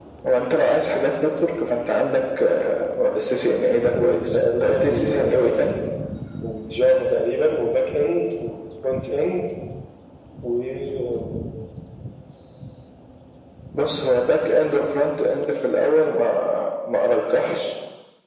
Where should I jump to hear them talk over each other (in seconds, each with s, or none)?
4.0 s